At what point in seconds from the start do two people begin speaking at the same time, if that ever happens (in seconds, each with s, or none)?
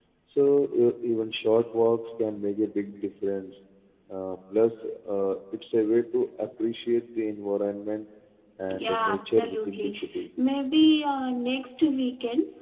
8.8 s